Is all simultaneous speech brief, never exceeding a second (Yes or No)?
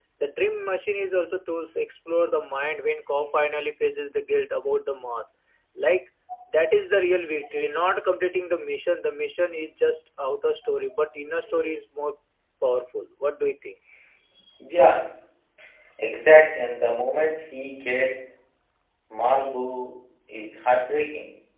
Yes